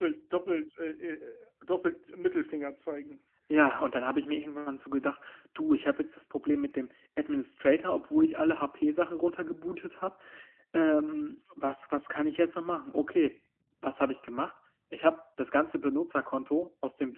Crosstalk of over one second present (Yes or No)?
No